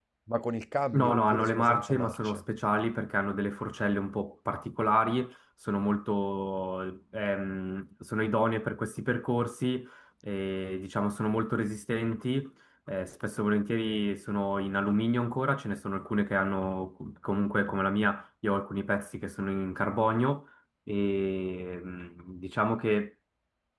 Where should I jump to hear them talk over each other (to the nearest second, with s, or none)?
1 s